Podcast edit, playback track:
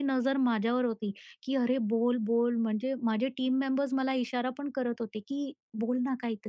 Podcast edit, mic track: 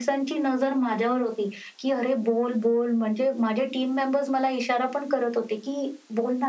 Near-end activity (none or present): none